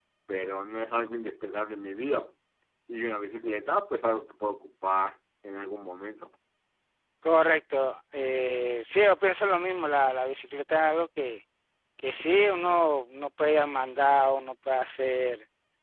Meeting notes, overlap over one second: none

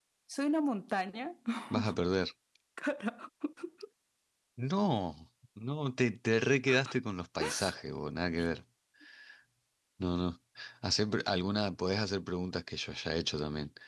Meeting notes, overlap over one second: none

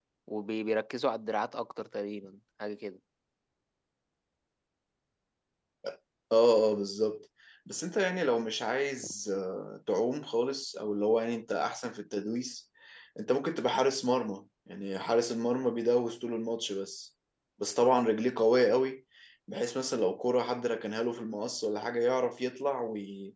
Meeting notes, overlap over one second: none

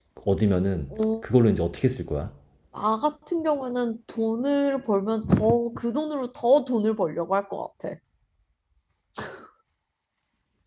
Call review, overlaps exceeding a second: none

